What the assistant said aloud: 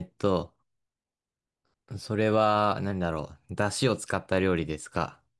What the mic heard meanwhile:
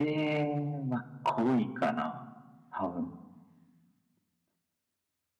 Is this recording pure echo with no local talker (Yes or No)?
No